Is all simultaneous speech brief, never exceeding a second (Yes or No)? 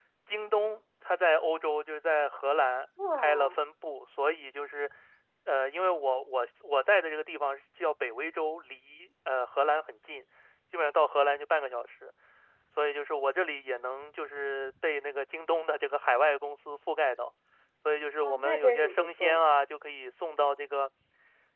No